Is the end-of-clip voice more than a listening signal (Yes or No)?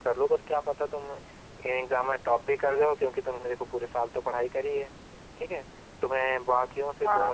Yes